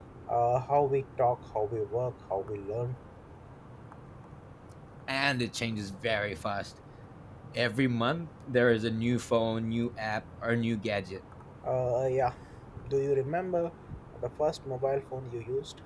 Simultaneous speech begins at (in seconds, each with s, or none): none